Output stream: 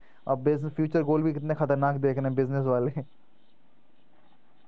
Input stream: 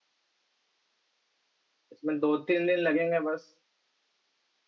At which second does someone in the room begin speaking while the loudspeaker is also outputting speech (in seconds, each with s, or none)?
1.9 s